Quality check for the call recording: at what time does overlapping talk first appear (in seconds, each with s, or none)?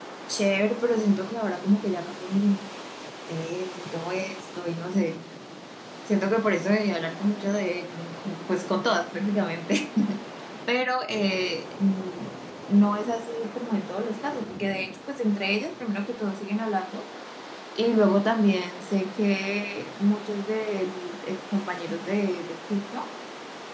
none